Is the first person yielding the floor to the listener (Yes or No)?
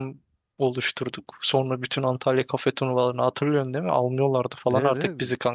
Yes